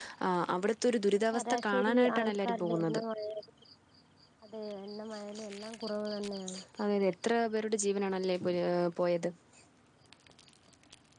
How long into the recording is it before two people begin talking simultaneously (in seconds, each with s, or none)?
1.3 s